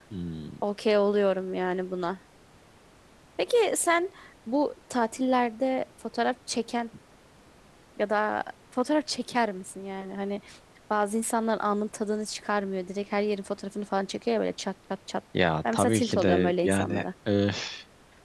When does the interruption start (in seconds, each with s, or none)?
15.7 s